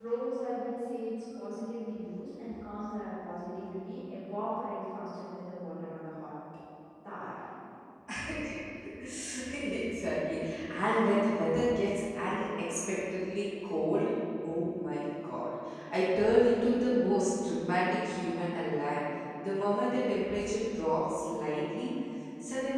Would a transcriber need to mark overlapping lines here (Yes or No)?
No